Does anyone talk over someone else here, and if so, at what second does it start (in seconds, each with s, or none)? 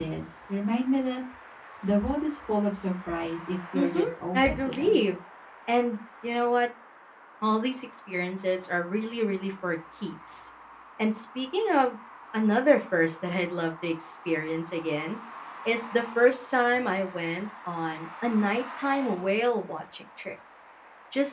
3.7 s